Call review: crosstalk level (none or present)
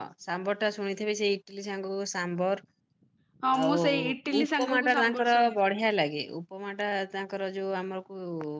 present